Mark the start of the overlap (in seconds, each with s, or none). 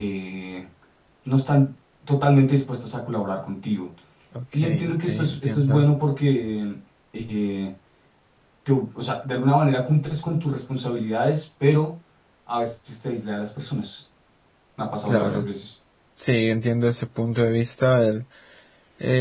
4.5 s